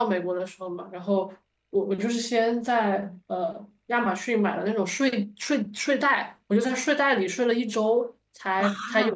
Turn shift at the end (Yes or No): No